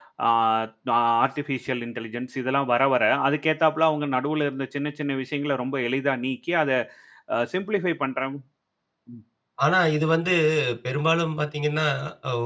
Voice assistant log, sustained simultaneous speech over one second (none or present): none